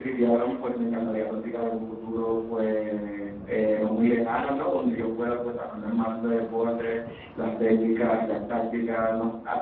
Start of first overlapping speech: none

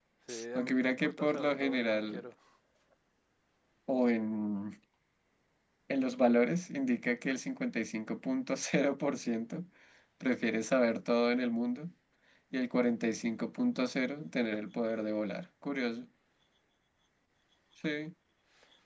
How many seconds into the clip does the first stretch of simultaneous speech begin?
0.6 s

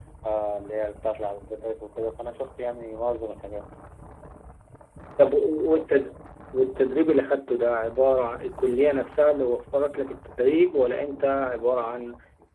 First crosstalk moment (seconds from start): none

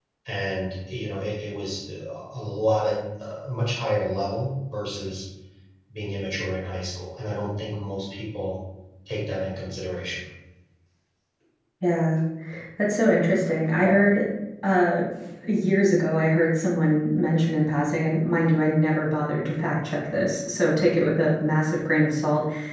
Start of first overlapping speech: none

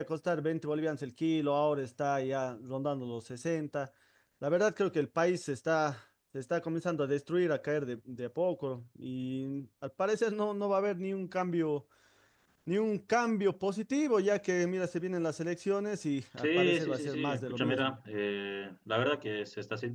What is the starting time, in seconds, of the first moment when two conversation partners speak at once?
16.4 s

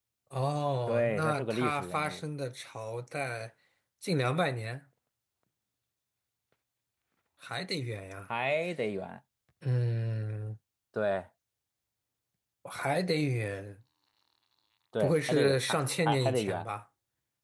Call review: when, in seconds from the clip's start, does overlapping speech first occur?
0.9 s

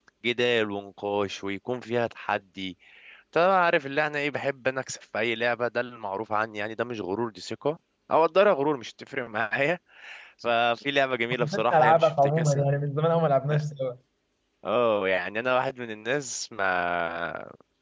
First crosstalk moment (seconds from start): 11.3 s

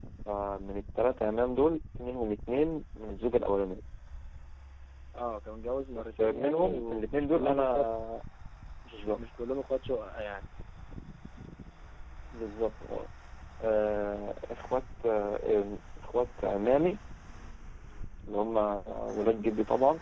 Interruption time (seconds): 6.0 s

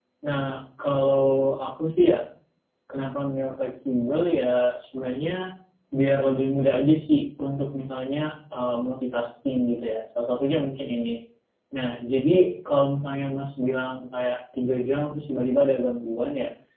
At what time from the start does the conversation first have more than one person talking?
none

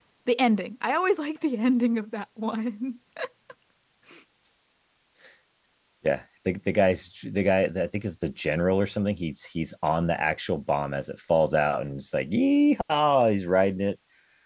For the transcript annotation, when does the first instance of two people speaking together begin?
none

